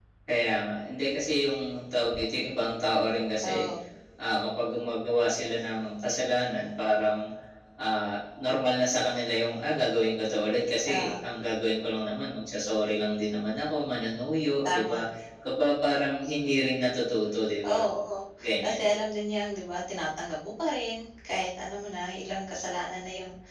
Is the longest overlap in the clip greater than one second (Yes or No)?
No